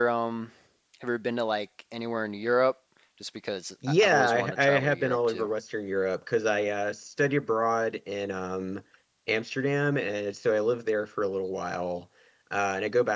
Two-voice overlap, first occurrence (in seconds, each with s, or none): 3.9 s